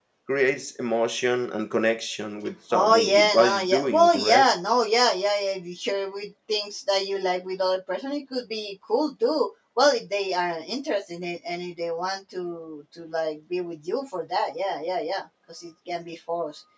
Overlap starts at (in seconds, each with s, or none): 2.7 s